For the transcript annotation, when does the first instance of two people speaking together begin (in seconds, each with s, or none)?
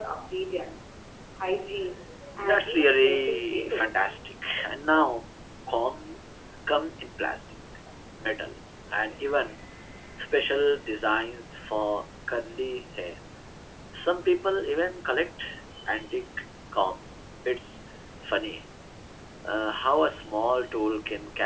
2.2 s